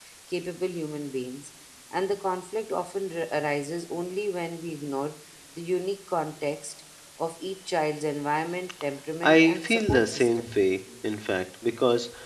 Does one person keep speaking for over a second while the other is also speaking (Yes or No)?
Yes